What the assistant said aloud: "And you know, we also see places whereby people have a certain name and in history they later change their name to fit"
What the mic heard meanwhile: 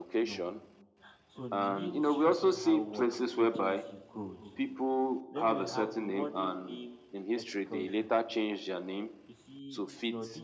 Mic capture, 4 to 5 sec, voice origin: both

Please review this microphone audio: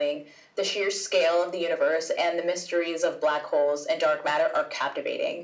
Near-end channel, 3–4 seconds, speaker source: echo only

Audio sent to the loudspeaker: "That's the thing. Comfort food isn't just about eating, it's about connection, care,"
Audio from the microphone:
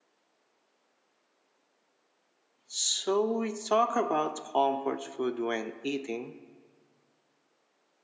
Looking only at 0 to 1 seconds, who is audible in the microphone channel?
neither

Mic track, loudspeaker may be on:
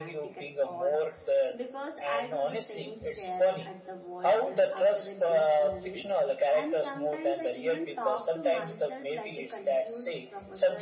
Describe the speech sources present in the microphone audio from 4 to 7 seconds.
both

